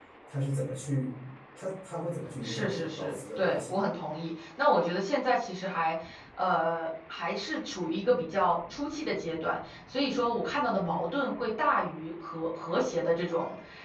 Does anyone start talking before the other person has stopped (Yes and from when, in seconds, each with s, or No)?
Yes, from 2.4 s